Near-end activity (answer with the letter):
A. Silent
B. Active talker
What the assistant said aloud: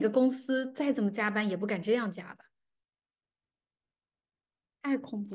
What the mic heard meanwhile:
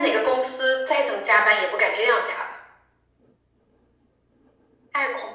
A